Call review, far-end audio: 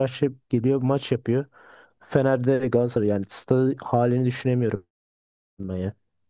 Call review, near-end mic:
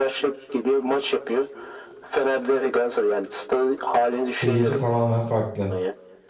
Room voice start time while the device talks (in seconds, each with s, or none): 4.2 s